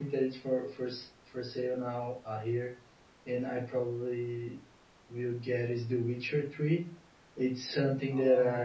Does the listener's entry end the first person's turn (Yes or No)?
No